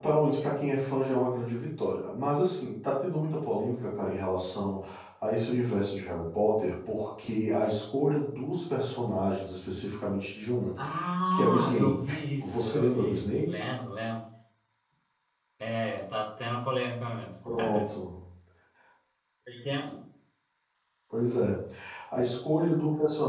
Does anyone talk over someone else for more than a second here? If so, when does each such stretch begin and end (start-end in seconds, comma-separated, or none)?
11.3-13.5